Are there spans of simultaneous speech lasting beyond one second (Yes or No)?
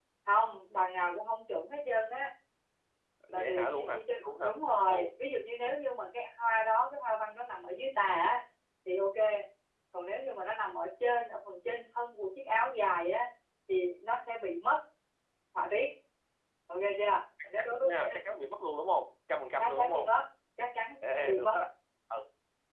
Yes